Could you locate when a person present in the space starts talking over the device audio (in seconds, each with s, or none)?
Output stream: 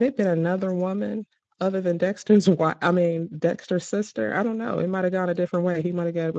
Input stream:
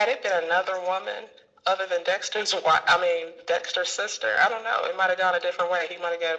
none